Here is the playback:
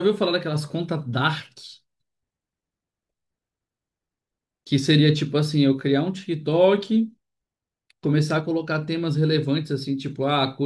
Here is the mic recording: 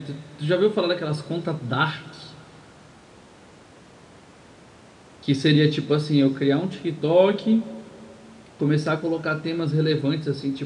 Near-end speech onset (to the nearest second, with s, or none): none